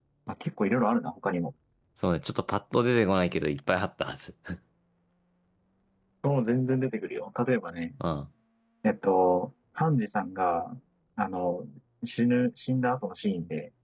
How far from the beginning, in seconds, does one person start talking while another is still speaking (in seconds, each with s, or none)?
none